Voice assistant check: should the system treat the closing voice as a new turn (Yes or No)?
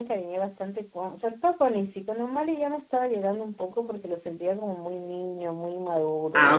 Yes